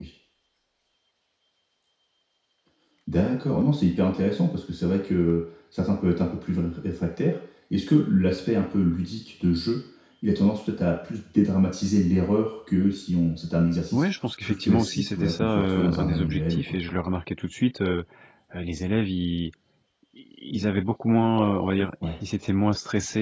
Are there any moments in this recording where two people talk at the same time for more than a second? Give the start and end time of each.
13.9-16.8

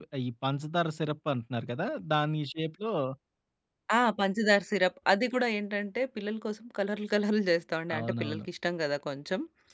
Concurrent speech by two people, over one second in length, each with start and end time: none

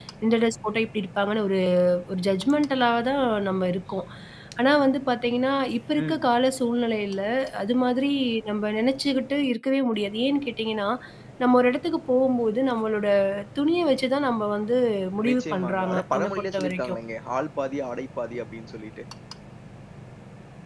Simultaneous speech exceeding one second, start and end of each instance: 15.3-17.0

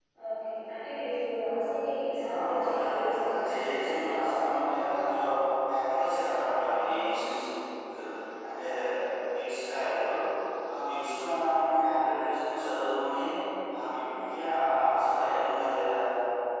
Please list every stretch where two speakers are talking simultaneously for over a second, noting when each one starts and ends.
2.2-3.9

